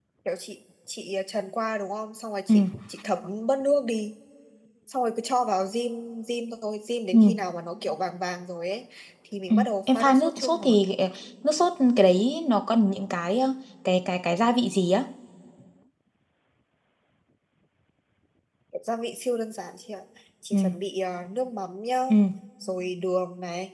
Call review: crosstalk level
present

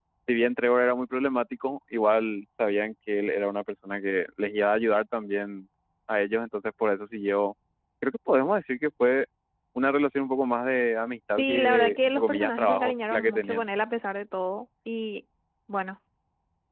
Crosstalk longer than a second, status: present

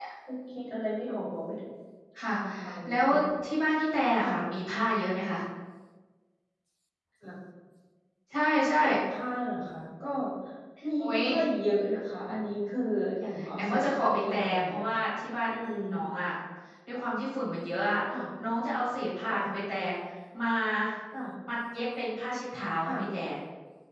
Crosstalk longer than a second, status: present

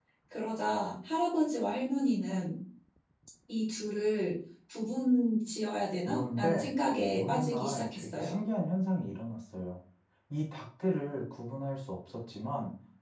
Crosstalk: present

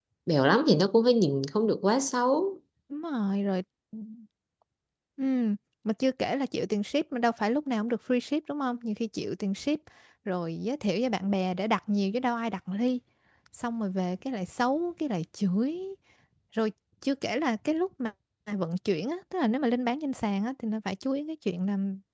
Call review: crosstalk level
none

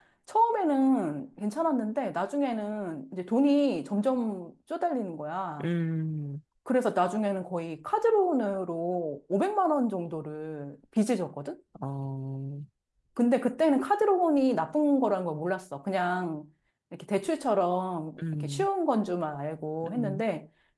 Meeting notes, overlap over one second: none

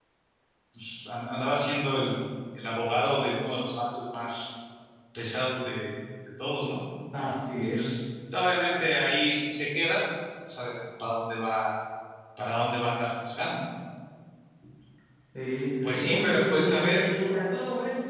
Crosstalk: present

